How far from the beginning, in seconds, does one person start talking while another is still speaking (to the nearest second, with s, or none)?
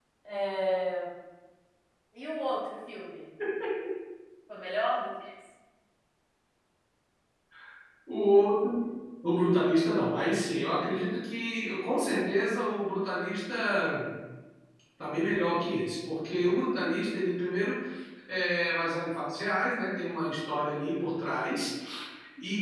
none